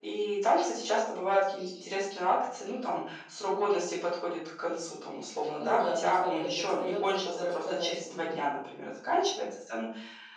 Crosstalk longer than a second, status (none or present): present